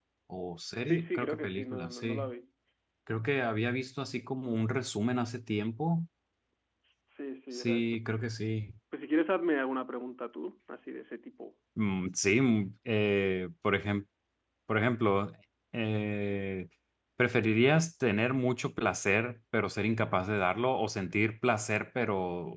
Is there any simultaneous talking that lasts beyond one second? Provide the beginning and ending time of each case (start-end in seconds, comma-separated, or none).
0.8-2.3